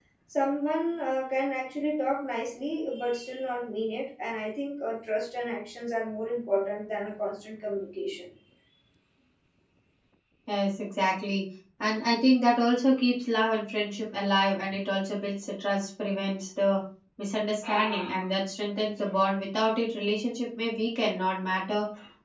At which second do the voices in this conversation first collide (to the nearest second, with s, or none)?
none